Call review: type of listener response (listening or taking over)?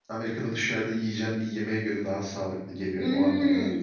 taking over